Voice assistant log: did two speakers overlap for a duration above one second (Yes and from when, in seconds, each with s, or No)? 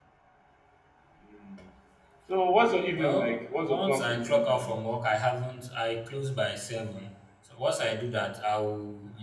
Yes, from 2.9 s